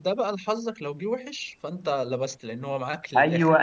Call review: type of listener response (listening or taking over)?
taking over